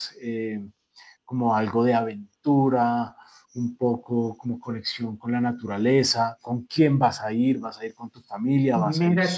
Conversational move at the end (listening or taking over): taking over